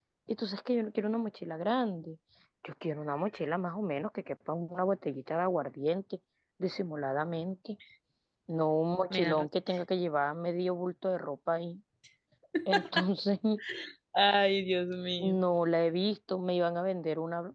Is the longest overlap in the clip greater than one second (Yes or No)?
No